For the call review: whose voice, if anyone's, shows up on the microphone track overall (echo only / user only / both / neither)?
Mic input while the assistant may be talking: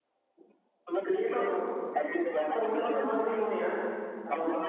both